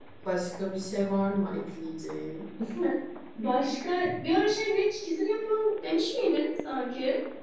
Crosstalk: none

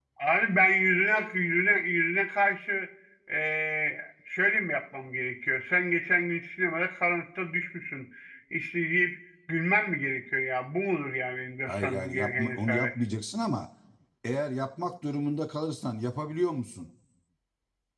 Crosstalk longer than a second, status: present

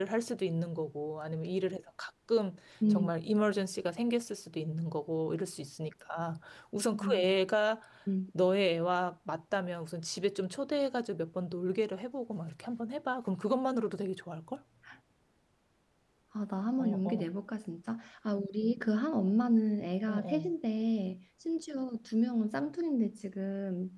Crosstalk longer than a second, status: none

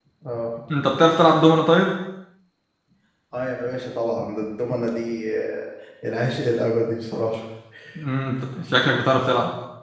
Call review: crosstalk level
none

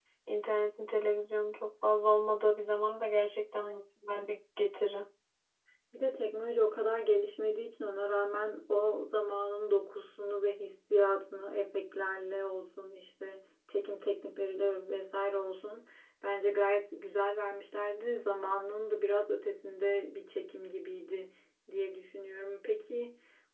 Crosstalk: none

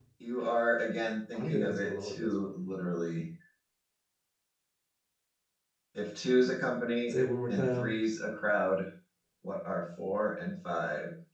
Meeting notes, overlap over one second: present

